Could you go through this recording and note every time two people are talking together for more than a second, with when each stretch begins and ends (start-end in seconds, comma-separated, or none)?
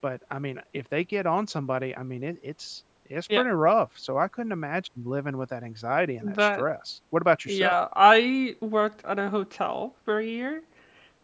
none